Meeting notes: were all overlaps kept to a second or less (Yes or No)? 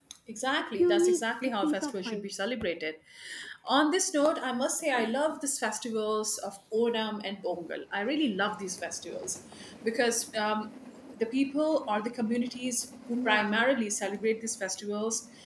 No